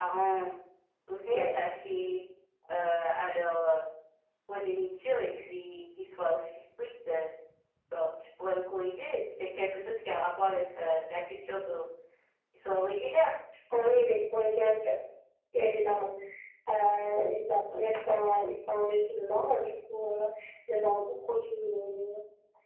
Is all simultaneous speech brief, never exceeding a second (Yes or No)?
Yes